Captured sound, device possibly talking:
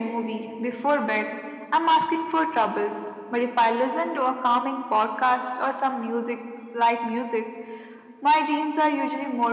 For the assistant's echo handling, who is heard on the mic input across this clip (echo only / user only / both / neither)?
echo only